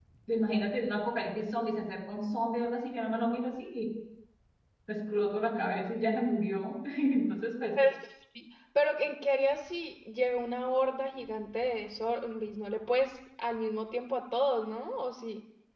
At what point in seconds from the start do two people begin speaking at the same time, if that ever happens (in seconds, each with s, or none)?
none